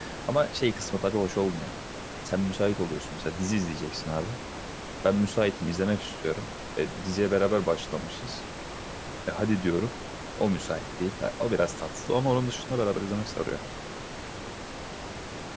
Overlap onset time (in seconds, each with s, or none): none